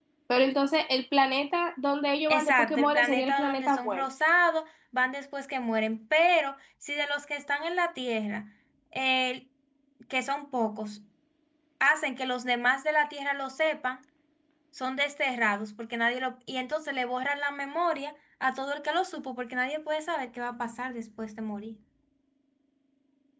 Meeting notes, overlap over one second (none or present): present